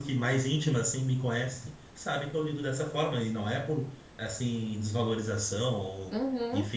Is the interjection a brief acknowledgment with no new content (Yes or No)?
Yes